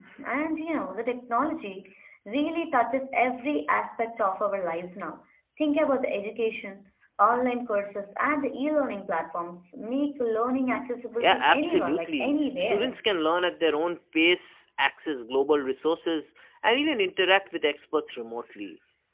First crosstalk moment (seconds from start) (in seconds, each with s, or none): 11.2 s